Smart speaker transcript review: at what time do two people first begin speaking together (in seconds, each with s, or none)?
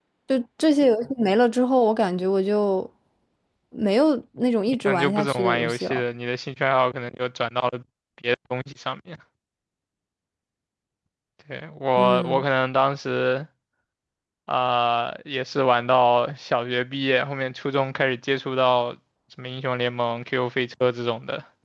4.8 s